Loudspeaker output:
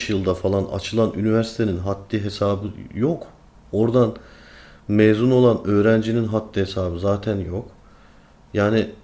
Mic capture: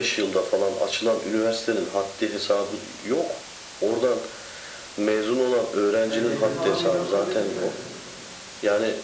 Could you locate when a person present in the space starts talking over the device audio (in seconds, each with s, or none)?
6.0 s